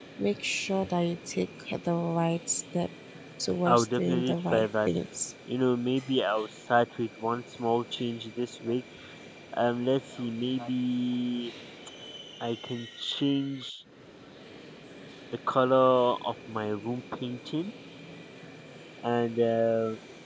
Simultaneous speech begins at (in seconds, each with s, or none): 3.6 s